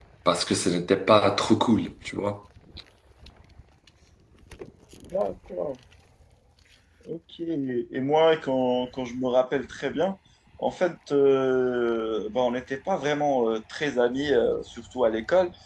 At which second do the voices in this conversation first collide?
none

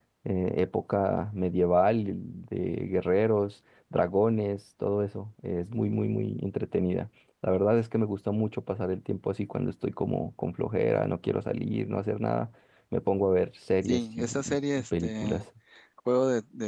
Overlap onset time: 13.8 s

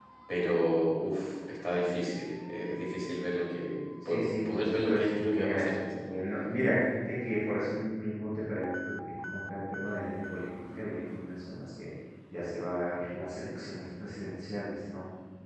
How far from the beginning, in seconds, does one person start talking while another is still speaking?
4.0 s

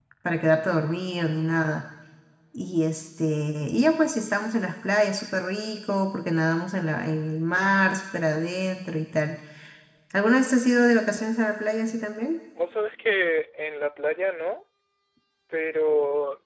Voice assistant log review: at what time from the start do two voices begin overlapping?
none

